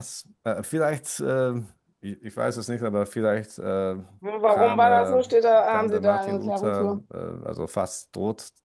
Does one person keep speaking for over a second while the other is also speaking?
Yes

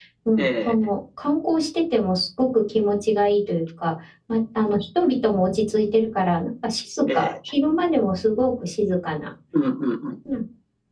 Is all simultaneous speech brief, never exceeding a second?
Yes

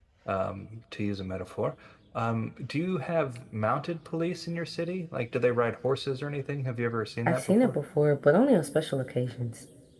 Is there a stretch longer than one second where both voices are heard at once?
No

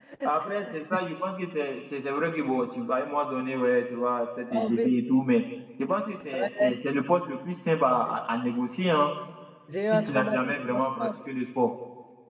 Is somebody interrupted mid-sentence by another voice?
Yes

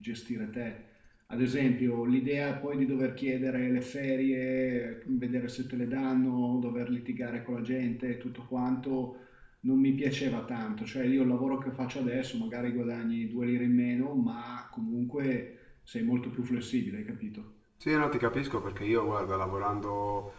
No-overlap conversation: Yes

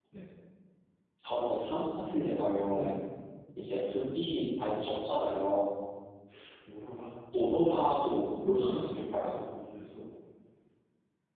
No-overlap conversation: No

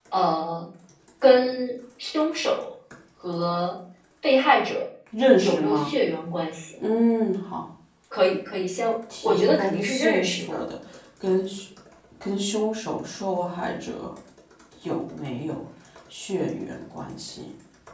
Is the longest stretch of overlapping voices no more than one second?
No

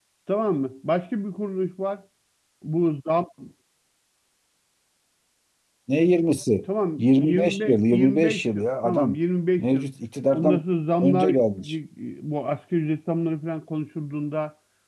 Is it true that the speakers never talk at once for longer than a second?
No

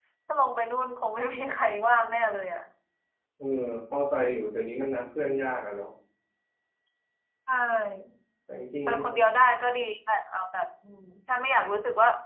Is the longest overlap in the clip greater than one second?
No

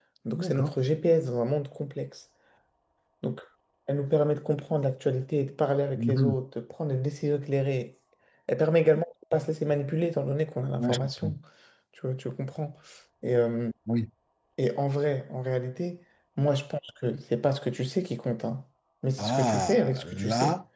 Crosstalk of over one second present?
Yes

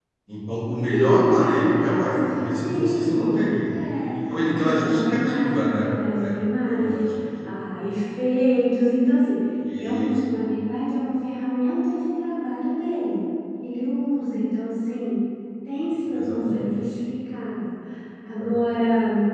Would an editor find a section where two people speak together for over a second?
Yes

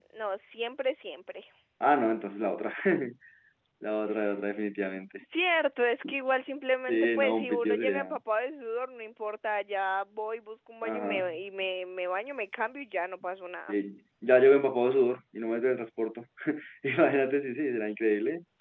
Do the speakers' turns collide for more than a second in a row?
Yes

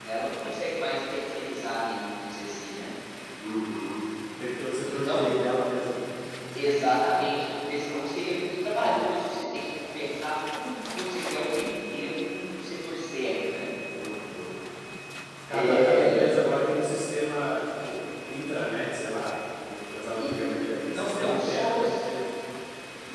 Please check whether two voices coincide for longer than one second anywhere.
Yes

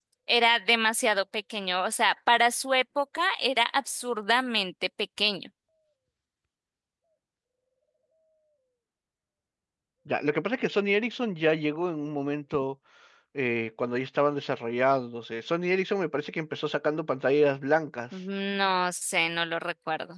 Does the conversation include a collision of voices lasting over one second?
No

